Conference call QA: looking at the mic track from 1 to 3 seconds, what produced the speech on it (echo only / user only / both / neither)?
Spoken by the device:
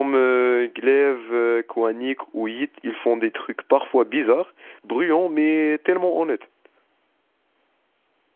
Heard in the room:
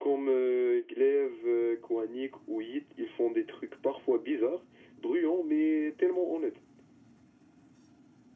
echo only